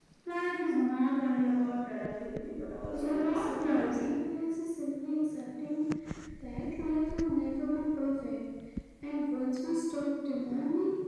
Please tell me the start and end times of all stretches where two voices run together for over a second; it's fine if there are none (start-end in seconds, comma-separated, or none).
2.9-4.1